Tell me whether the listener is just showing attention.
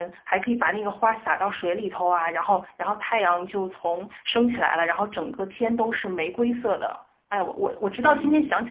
No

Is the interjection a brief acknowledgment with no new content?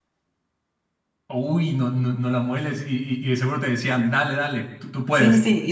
No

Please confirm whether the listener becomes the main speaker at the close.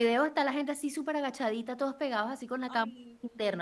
No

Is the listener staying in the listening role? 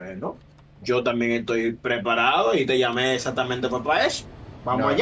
No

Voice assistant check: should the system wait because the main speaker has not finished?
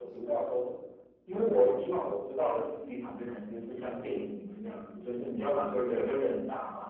Yes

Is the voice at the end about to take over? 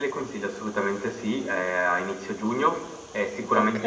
No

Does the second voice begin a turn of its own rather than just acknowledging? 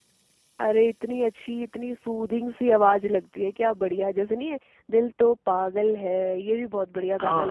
Yes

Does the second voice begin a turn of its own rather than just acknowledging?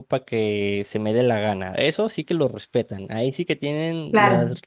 Yes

